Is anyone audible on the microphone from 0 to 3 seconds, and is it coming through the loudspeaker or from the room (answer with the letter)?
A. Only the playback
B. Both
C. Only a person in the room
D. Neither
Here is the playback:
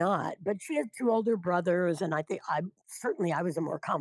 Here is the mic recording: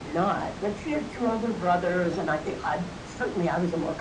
A